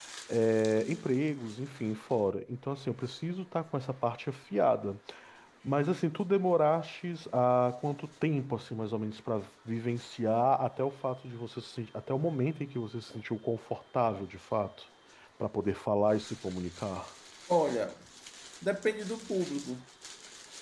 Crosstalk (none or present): none